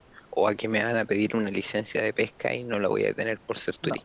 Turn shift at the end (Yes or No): Yes